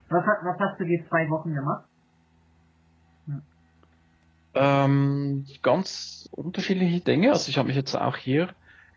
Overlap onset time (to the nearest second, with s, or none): none